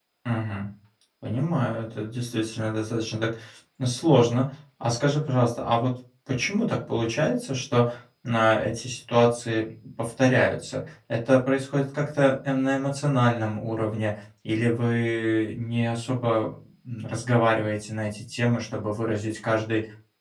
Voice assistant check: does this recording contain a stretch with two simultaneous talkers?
No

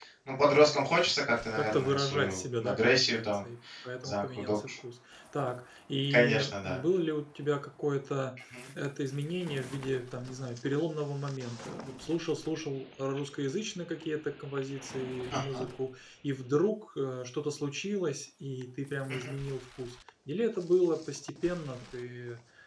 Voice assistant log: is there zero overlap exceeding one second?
No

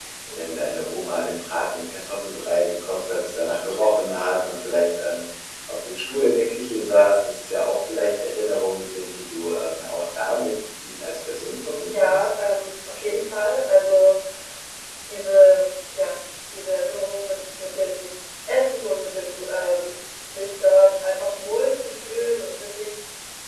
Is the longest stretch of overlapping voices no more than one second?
Yes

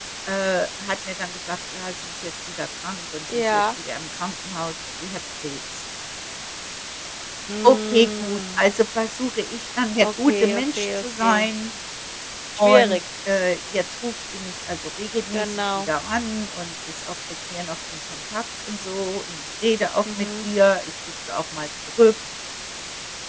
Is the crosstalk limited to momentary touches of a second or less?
No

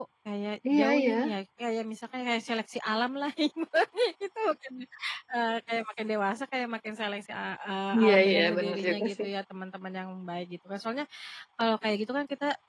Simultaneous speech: Yes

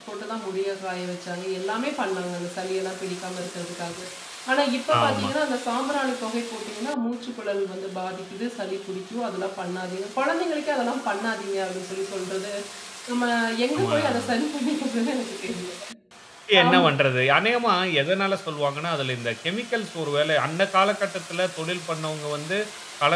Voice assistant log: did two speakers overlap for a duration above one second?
No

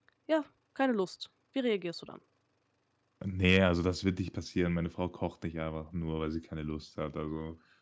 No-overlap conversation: Yes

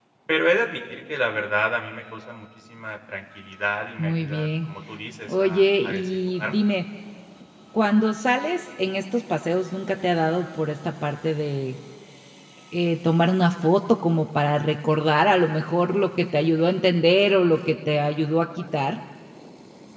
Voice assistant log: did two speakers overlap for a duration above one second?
Yes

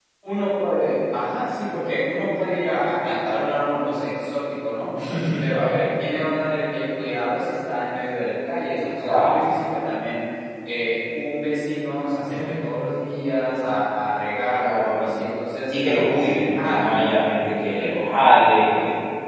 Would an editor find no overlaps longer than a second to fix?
Yes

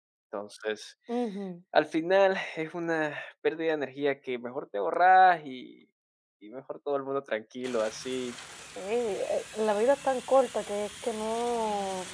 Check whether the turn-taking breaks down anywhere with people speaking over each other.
No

